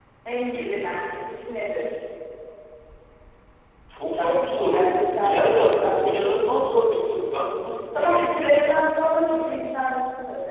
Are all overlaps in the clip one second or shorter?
No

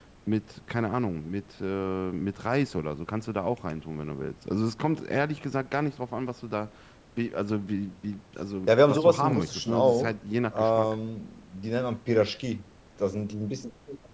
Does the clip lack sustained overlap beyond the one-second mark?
No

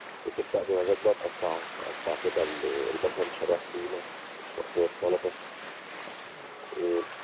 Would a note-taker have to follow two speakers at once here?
No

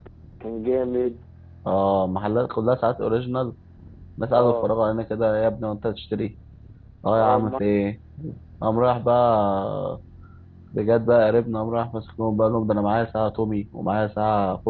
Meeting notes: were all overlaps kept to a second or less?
Yes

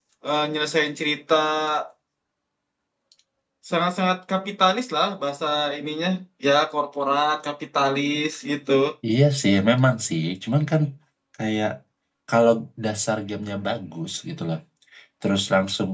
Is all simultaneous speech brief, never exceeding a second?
Yes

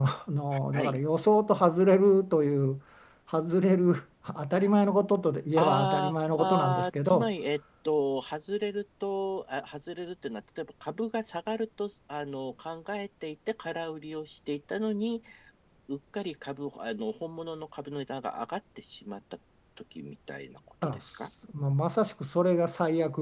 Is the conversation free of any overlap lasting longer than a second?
No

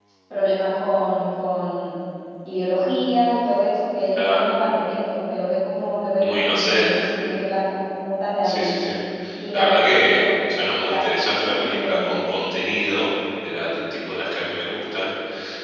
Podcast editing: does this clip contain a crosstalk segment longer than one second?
Yes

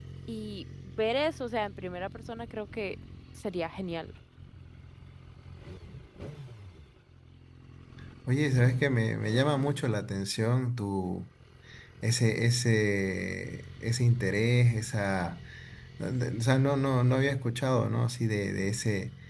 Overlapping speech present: No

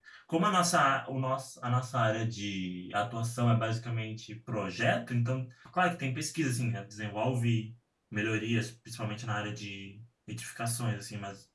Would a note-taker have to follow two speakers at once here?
No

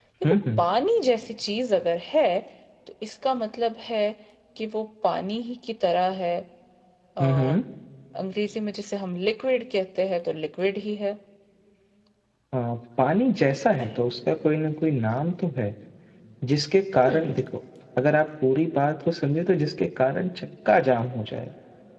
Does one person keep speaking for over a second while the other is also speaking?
No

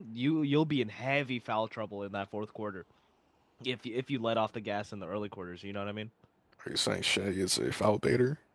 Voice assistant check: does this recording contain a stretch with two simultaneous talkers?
No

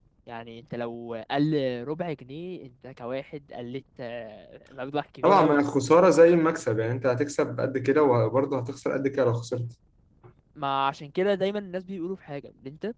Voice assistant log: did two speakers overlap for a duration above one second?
No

